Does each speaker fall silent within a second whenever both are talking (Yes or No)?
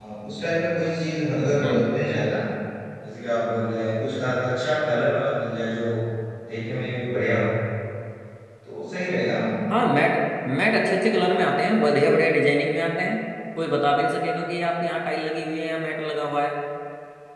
Yes